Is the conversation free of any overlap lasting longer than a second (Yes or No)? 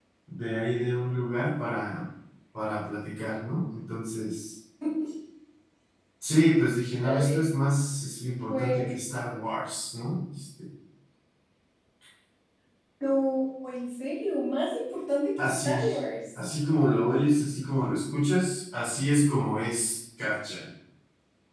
Yes